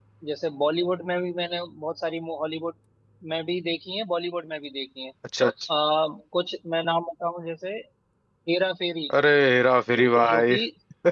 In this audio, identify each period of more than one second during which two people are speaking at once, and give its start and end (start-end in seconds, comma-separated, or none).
none